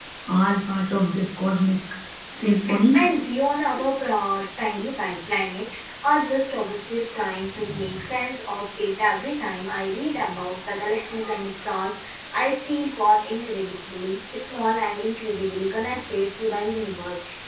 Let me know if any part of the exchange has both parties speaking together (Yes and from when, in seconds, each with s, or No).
No